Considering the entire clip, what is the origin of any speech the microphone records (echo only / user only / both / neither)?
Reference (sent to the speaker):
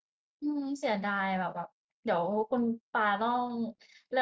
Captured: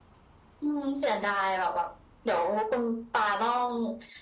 echo only